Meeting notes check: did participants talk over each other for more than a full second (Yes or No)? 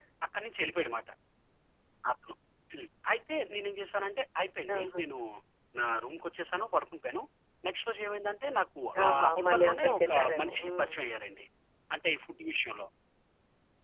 Yes